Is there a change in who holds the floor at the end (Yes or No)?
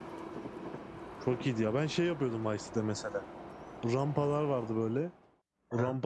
No